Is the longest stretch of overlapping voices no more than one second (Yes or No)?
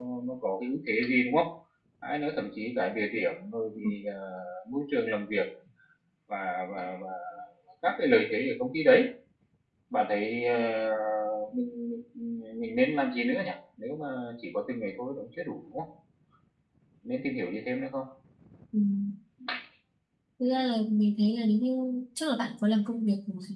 Yes